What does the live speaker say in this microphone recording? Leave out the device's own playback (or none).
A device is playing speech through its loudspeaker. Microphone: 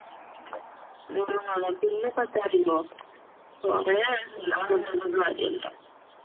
ഞാൻ